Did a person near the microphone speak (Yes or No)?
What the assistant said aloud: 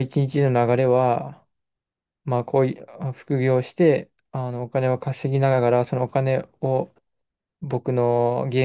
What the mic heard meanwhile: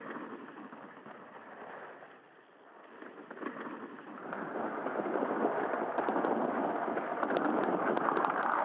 No